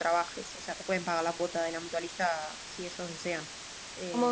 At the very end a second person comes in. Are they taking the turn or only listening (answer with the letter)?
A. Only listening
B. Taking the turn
A